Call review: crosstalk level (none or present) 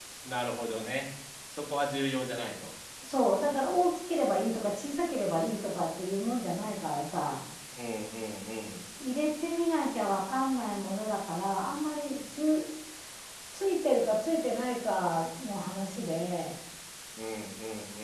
none